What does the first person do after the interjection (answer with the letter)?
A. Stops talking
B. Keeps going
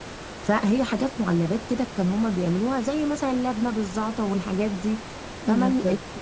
B